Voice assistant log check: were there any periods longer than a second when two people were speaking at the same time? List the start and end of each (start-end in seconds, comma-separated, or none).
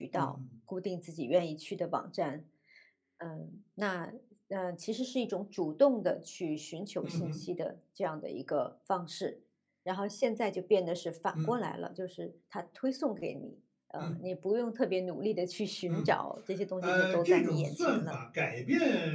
16.8-18.1